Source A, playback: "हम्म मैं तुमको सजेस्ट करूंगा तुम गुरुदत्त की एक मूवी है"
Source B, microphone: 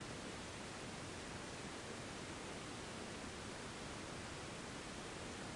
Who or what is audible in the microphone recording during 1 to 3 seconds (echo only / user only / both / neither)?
neither